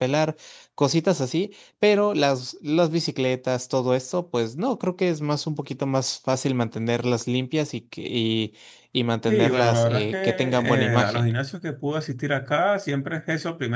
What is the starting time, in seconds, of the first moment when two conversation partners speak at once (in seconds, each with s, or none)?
9.3 s